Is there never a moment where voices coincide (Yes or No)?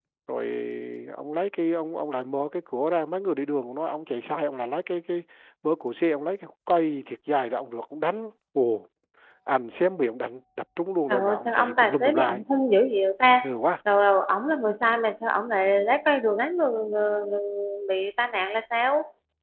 No